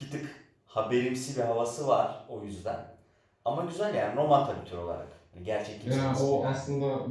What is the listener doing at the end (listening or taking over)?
taking over